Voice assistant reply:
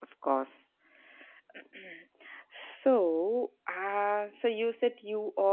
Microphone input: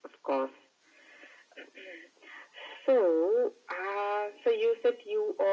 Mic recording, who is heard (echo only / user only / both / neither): echo only